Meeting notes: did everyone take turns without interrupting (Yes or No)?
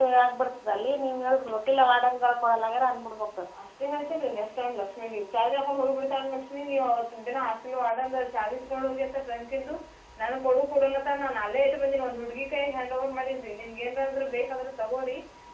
Yes